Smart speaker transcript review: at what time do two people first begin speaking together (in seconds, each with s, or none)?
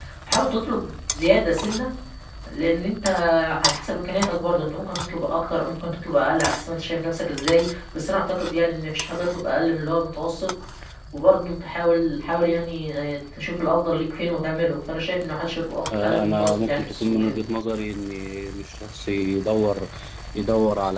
15.9 s